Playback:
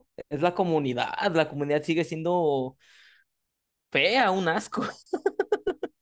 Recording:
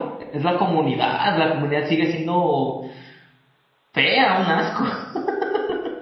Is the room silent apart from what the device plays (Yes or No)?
Yes